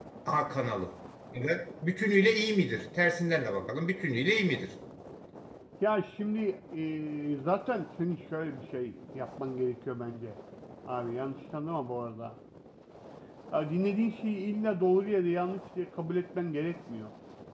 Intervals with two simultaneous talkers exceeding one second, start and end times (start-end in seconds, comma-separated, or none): none